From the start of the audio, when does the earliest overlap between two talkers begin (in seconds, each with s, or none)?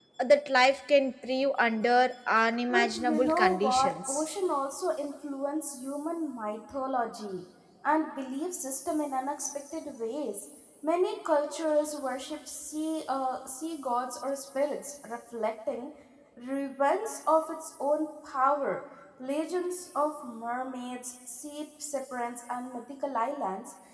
2.7 s